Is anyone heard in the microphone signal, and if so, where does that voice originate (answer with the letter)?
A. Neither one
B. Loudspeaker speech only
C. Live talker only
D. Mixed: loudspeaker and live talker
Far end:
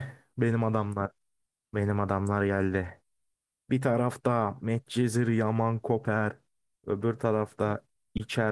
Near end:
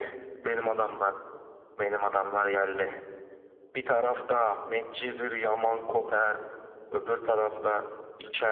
B